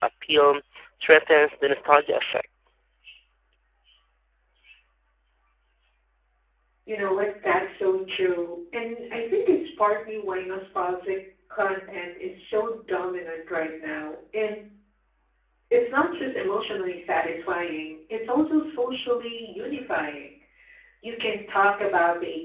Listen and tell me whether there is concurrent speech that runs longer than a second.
No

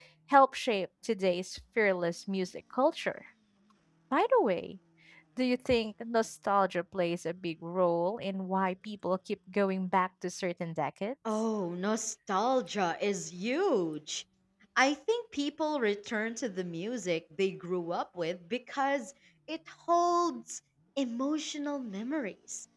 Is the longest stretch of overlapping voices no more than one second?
Yes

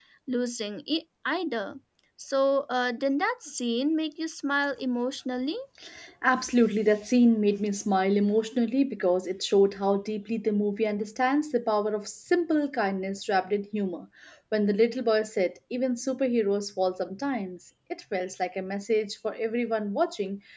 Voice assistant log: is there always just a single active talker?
Yes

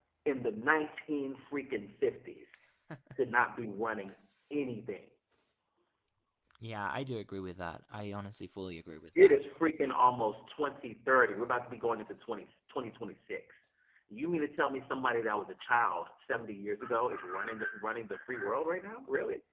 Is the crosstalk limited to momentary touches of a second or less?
Yes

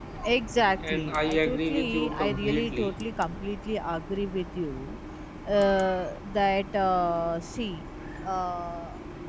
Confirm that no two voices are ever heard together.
No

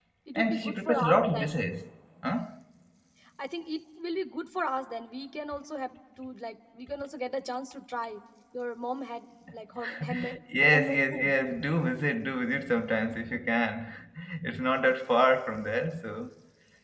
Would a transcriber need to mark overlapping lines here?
Yes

